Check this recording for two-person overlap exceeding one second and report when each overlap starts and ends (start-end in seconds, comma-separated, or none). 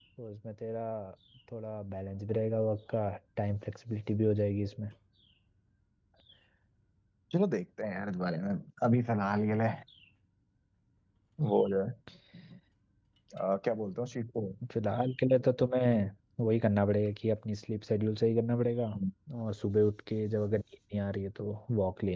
none